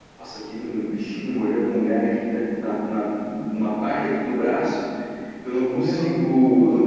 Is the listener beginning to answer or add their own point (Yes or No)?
No